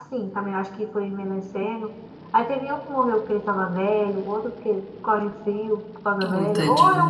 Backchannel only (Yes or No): Yes